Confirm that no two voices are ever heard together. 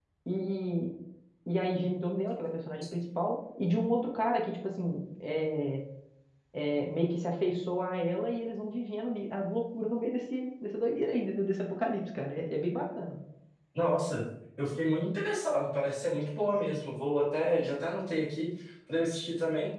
Yes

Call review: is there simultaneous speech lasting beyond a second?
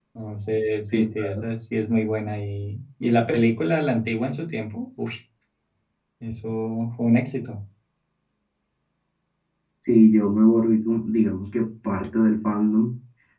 No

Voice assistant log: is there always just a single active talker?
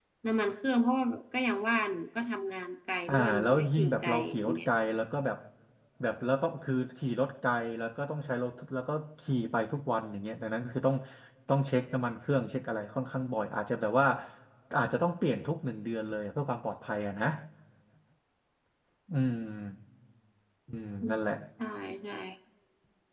No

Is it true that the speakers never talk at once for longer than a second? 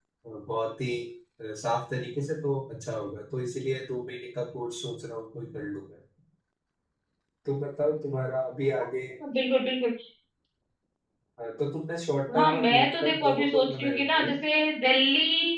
No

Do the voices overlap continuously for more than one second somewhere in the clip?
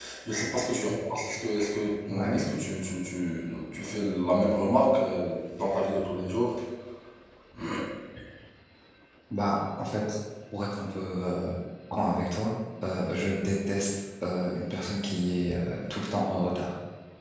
No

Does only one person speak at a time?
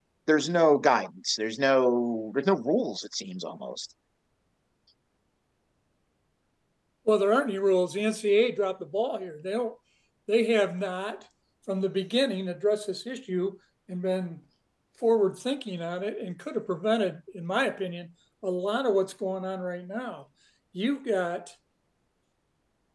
Yes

